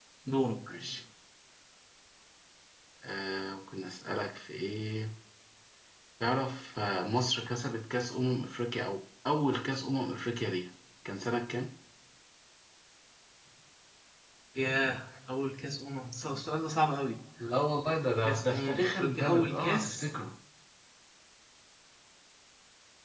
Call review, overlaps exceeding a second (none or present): present